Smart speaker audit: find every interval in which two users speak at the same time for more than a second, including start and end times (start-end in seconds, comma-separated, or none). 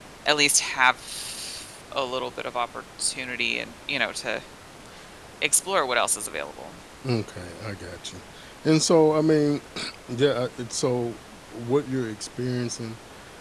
none